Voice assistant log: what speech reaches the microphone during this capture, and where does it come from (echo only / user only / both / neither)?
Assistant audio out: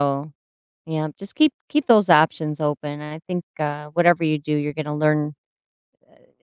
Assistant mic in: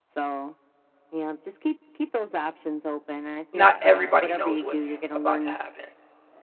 both